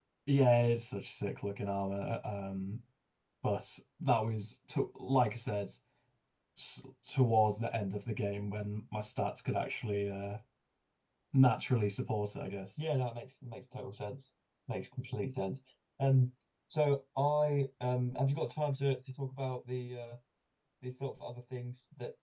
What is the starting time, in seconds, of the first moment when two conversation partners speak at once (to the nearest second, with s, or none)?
none